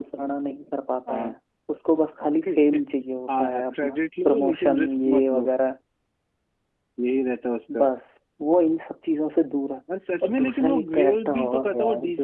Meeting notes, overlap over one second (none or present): present